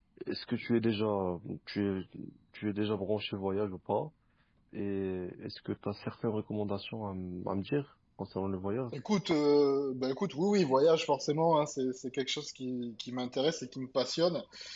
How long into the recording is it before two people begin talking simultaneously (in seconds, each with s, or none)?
none